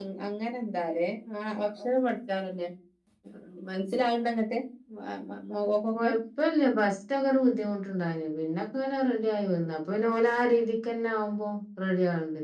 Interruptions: none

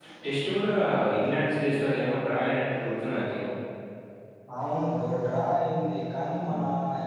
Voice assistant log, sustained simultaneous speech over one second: none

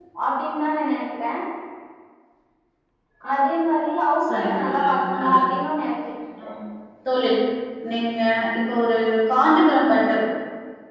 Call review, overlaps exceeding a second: present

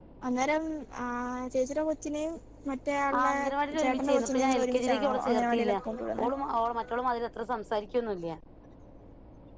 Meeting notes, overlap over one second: present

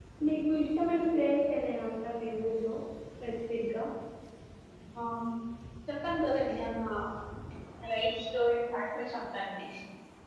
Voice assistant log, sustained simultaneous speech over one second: none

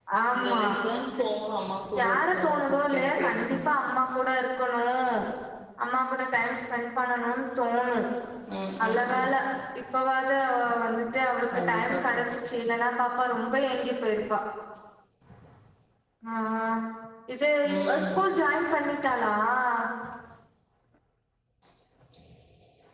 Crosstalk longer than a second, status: present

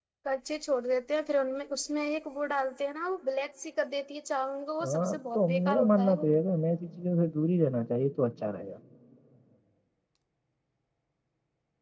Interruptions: present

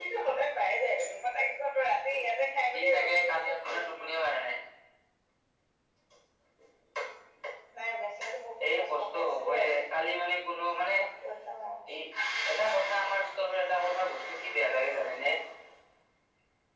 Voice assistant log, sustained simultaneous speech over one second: present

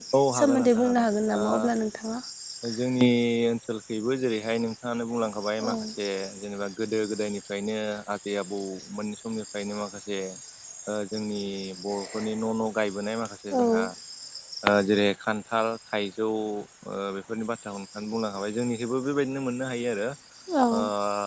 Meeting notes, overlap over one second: present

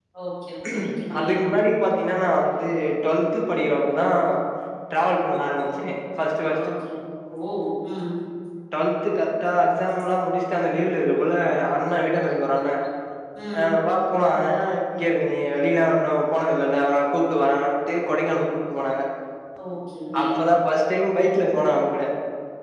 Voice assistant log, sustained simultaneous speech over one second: none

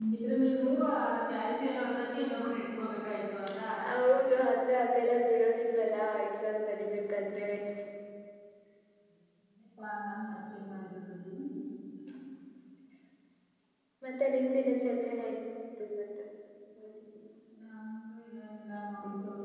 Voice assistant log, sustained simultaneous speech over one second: none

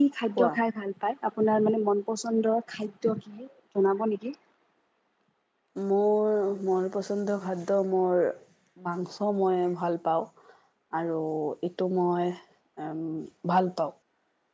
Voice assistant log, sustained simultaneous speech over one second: none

